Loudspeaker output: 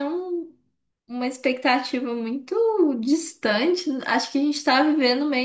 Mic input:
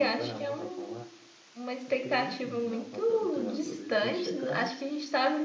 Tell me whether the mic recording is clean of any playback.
No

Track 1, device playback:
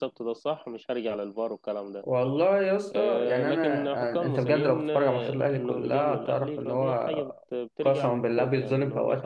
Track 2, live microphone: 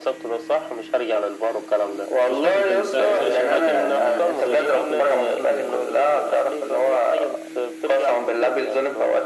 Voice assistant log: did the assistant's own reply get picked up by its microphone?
Yes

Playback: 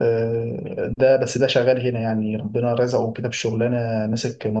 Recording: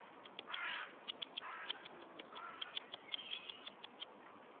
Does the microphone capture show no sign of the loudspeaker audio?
Yes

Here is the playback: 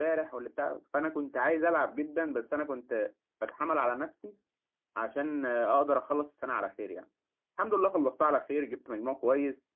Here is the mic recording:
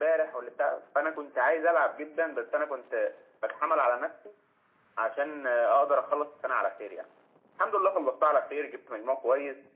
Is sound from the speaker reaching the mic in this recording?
Yes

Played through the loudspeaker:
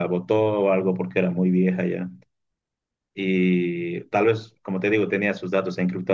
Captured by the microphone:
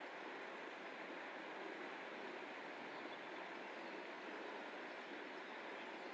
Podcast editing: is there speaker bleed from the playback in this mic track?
No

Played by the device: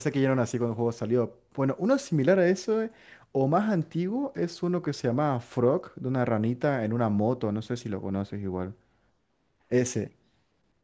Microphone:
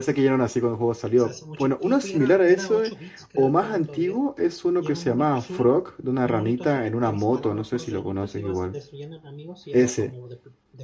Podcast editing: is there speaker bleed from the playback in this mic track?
Yes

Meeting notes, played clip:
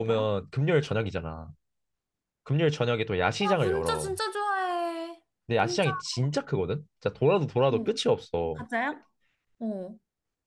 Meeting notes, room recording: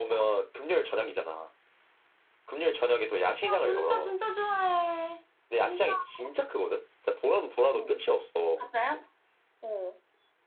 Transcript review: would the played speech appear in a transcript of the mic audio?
Yes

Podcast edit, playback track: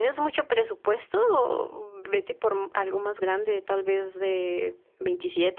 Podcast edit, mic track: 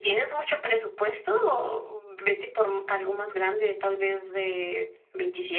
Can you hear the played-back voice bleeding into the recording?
Yes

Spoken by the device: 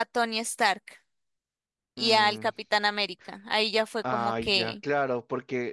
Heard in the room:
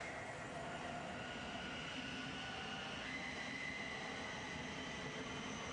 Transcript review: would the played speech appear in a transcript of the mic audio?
No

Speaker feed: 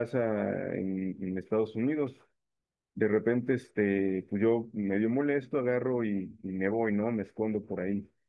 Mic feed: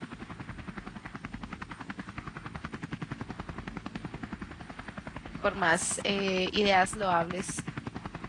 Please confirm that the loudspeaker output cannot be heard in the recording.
Yes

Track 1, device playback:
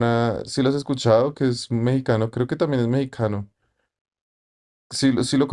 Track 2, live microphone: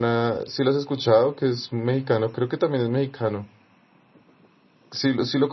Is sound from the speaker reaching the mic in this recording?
Yes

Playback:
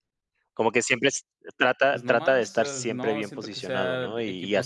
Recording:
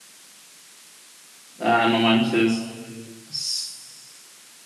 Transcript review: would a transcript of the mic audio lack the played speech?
Yes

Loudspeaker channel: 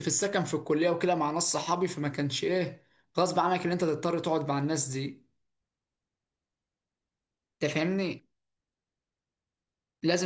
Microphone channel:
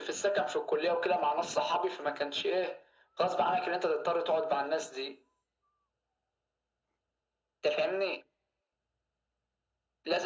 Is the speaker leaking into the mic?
Yes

